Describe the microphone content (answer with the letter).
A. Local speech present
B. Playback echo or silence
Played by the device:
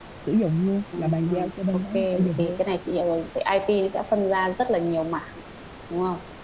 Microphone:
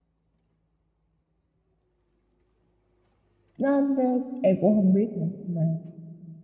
A